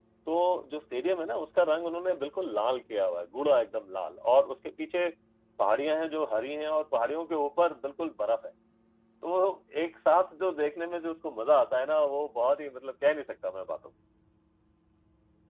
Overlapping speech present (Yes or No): No